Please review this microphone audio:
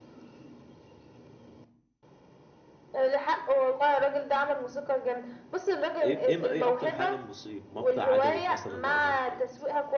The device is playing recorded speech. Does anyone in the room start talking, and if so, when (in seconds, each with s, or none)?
6.0 s